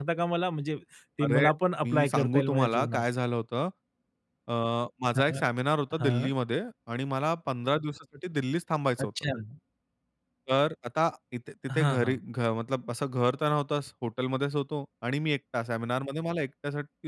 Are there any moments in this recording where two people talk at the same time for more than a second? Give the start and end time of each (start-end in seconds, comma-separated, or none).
1.8-3.0